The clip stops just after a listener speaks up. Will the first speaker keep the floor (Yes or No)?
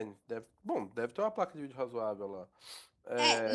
No